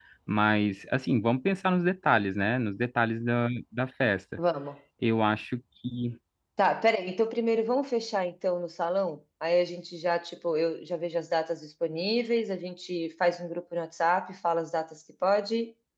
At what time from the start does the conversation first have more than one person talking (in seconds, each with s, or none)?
none